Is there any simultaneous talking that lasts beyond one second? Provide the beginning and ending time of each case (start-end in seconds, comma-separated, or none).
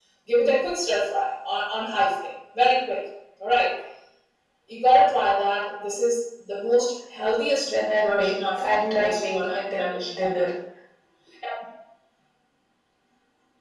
7.6-10.4